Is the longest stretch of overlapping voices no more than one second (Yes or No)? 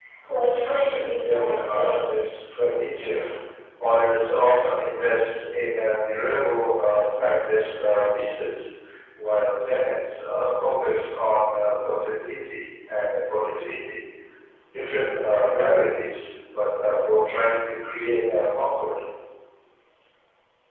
No